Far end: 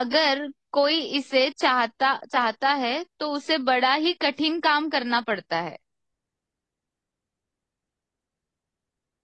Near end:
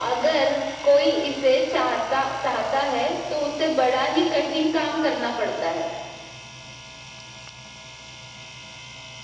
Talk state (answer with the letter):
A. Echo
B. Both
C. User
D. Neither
A